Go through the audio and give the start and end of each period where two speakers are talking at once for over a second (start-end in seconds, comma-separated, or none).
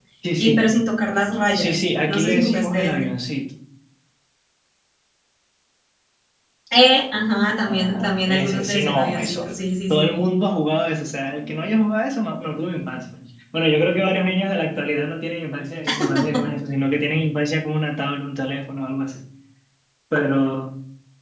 1.5-3.1, 7.7-9.4